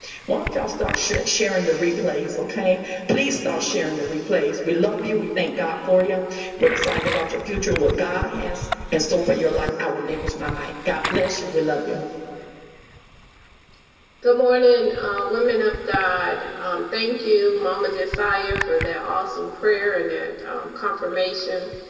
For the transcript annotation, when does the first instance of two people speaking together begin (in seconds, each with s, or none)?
none